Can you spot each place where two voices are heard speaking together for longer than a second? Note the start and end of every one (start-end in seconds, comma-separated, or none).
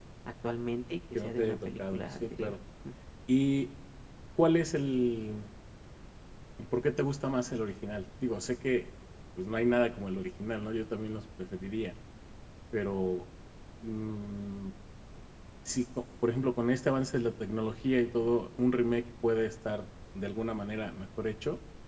1.1-2.5